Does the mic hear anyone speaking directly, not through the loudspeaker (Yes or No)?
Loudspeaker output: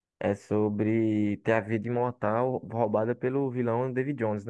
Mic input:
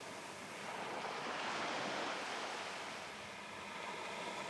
No